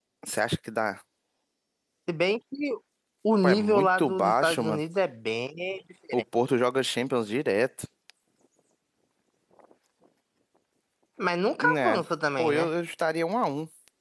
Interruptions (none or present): present